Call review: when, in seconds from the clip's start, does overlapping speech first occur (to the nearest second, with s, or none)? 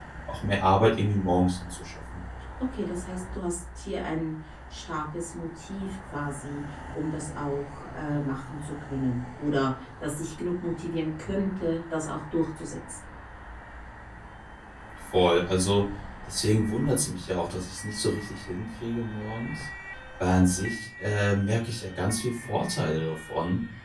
none